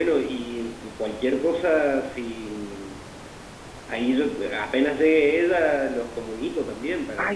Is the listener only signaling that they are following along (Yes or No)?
No